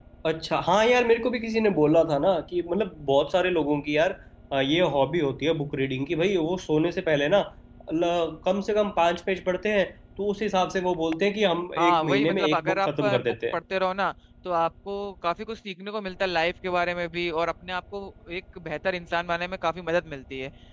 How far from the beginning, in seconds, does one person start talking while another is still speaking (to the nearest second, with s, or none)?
12 s